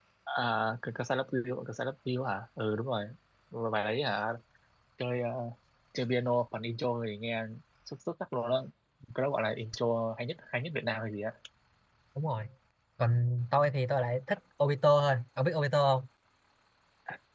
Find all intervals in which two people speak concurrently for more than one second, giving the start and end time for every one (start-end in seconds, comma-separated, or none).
none